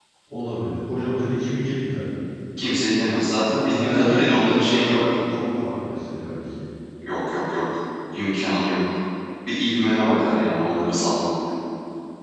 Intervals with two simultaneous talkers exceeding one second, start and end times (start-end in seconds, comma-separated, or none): 3.7-5.2